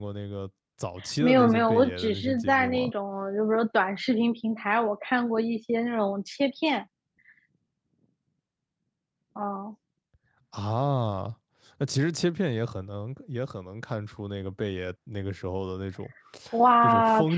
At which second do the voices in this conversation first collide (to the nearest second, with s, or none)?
1 s